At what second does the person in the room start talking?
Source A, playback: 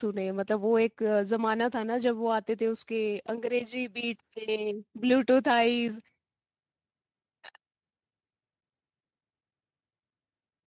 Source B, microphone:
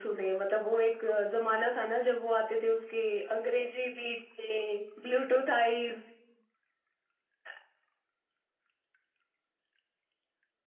none

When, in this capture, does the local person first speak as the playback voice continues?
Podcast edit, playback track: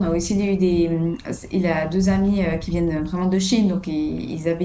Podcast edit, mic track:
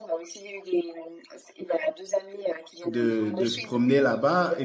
2.9 s

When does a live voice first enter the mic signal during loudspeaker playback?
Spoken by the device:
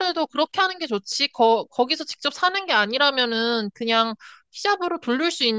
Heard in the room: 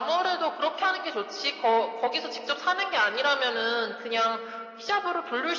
none

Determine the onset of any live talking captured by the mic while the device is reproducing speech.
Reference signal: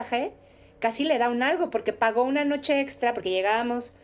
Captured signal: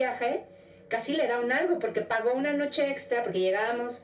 none

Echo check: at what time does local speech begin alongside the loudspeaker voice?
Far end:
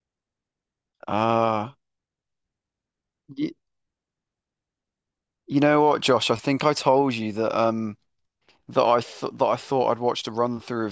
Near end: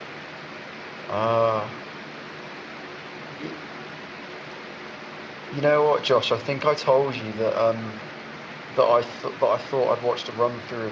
none

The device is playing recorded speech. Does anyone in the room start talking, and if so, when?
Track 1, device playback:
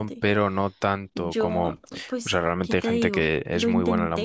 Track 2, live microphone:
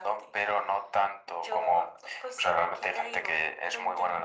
none

